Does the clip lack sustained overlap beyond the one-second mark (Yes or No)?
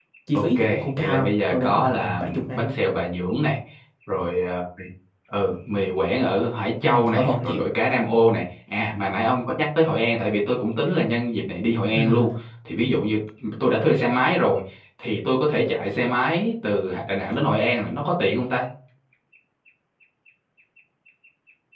No